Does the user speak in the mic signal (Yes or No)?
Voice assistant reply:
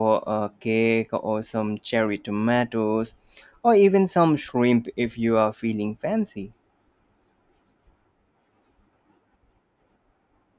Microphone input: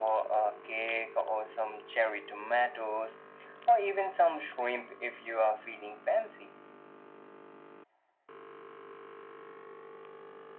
No